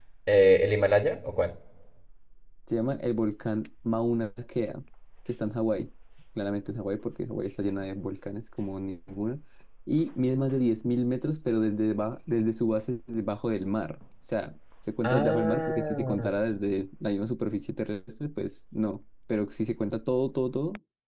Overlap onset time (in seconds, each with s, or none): 15.0 s